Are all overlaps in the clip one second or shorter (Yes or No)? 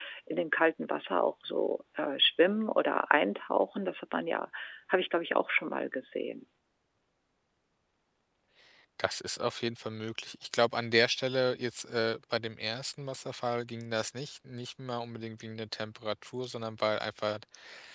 Yes